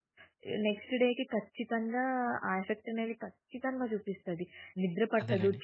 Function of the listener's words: listening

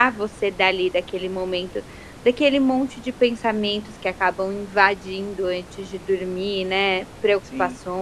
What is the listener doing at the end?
listening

